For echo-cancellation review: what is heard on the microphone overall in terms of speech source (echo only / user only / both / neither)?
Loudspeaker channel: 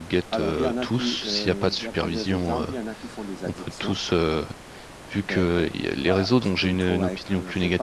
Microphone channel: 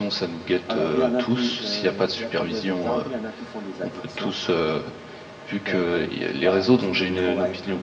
echo only